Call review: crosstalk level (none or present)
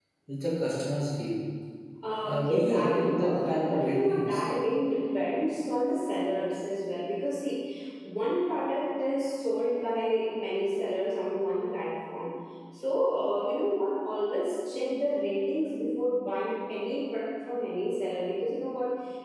present